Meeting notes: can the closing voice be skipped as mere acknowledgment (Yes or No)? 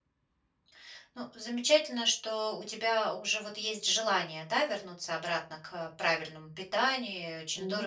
Yes